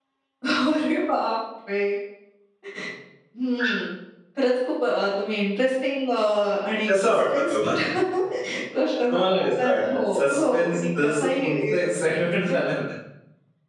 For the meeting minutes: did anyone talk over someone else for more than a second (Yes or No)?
Yes